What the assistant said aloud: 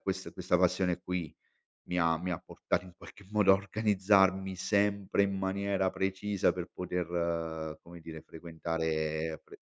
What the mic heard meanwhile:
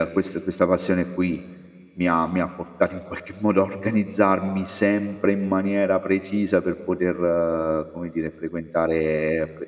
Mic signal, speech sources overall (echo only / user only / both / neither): echo only